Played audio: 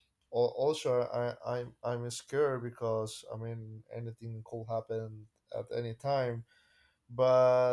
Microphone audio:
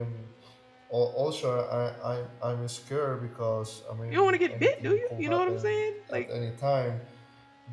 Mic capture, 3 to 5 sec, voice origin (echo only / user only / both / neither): both